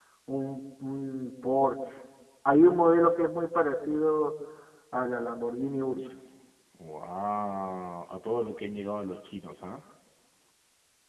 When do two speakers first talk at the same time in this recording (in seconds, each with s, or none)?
none